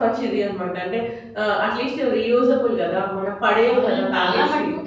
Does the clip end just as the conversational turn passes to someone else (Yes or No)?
Yes